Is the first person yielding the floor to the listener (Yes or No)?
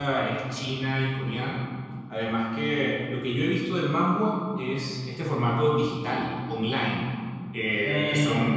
No